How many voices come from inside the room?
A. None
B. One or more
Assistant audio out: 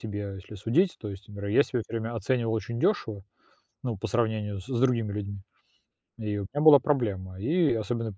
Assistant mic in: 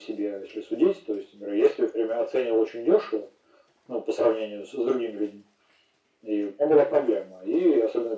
A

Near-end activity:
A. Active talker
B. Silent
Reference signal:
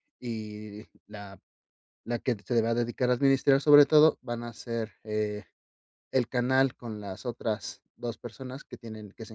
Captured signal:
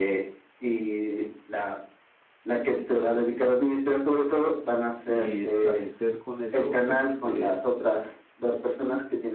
A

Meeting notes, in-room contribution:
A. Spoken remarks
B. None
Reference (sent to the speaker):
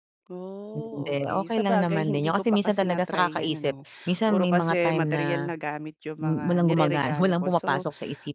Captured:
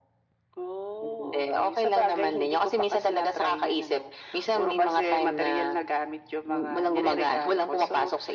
B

